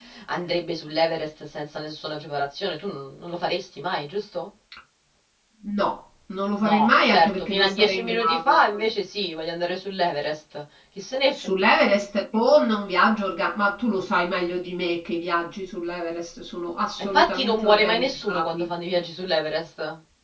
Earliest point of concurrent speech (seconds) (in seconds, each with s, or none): 6.6 s